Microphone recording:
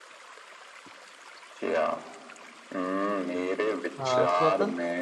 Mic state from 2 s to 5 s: both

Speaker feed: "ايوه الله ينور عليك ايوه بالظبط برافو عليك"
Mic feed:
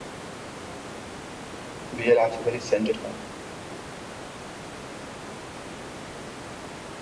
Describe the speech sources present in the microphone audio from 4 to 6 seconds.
neither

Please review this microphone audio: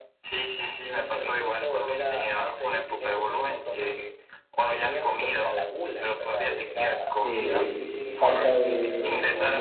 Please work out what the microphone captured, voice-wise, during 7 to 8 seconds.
both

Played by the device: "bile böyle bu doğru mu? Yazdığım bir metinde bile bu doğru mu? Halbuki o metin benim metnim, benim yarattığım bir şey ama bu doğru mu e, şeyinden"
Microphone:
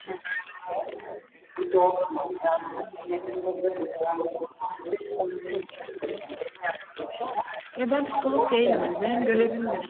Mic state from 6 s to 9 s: both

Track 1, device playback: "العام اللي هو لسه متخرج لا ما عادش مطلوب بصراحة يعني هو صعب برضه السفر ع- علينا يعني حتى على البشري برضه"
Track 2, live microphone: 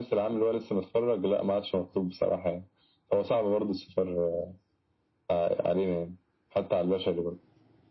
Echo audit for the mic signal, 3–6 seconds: echo only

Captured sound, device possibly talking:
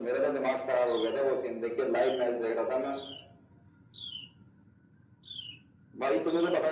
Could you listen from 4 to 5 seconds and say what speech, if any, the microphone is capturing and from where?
neither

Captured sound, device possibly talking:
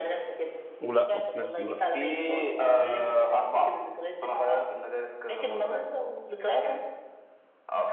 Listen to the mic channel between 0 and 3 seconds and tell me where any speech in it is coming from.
both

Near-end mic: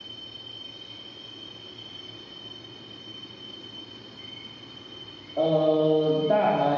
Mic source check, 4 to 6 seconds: user only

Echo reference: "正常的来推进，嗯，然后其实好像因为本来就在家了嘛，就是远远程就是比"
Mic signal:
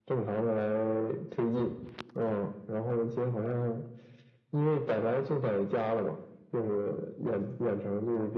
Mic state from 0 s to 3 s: echo only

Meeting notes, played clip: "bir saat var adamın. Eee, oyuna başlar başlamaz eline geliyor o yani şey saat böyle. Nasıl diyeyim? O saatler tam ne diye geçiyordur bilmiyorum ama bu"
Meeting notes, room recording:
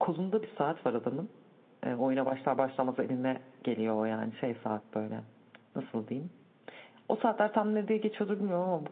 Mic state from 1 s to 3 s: echo only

